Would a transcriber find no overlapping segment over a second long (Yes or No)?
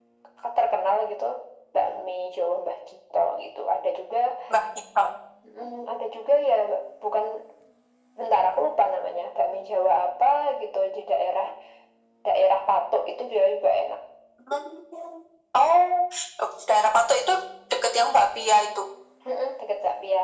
Yes